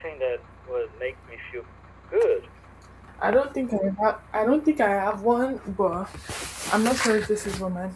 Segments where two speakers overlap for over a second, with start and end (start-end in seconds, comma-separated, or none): none